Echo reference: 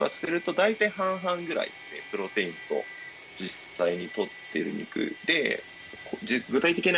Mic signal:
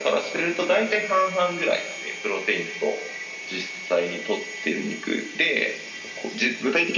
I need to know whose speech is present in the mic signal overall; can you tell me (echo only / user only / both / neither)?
echo only